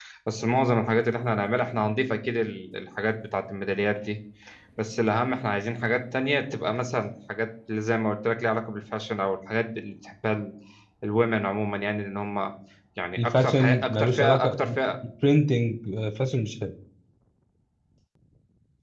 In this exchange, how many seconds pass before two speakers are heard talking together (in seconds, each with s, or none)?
13.2 s